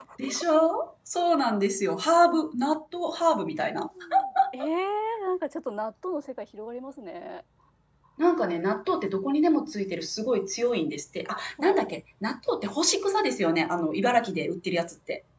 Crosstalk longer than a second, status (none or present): none